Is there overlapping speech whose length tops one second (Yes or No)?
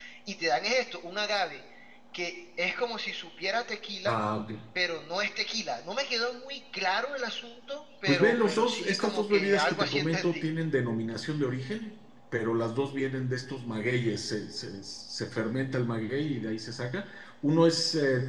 Yes